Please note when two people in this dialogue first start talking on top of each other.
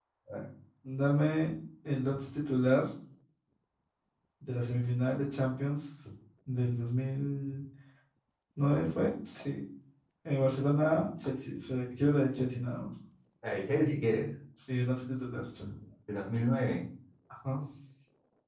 none

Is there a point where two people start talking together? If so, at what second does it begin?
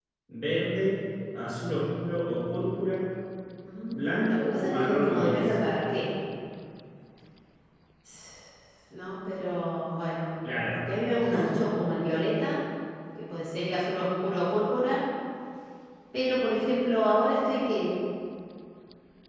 3.9 s

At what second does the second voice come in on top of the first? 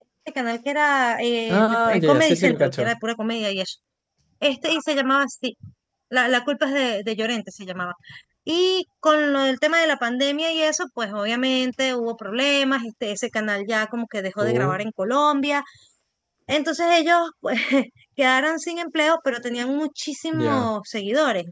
1.5 s

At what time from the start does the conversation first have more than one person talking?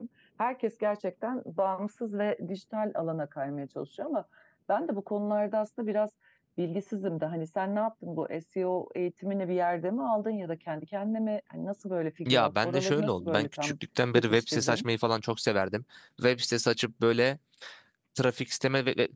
12.3 s

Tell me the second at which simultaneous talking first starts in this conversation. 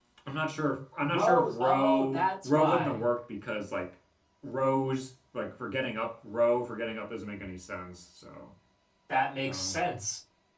1.0 s

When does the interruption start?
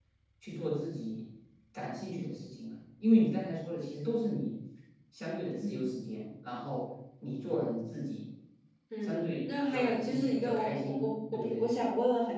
9.0 s

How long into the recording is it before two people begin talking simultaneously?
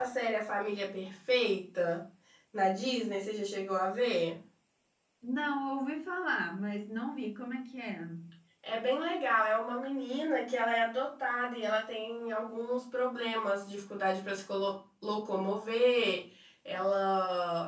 none

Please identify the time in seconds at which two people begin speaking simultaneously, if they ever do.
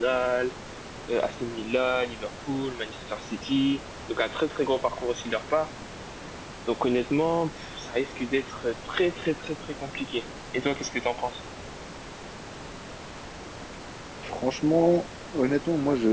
none

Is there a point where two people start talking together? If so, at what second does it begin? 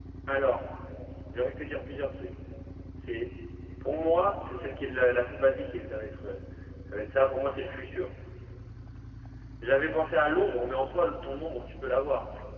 none

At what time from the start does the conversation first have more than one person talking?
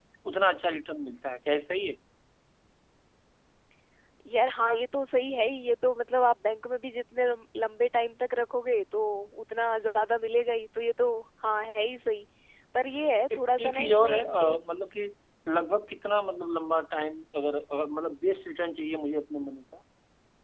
13.3 s

